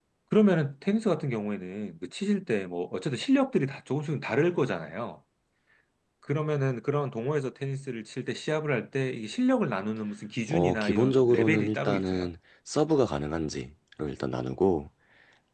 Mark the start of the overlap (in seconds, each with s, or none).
10.5 s